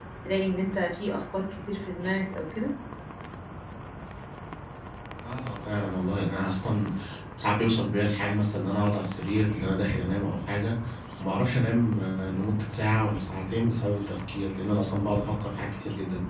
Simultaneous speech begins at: none

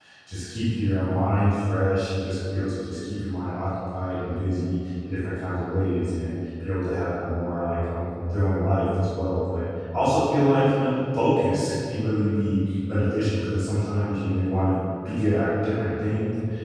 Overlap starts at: none

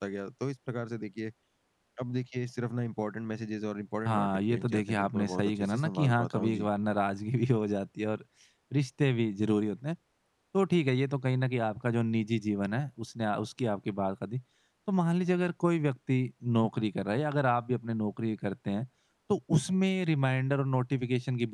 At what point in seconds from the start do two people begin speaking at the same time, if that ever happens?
4.0 s

